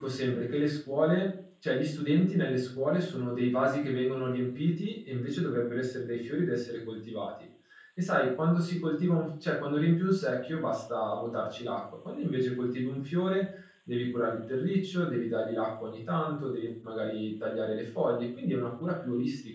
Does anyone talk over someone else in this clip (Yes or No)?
No